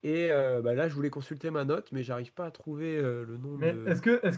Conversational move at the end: taking over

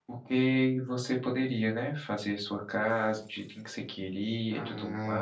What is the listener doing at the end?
taking over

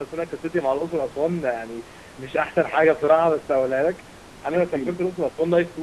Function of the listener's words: listening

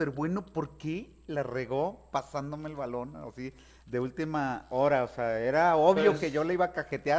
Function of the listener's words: listening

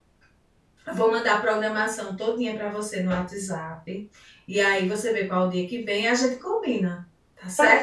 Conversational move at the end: taking over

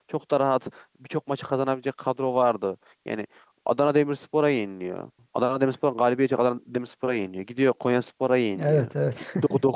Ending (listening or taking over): listening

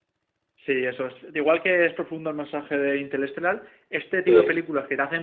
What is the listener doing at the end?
listening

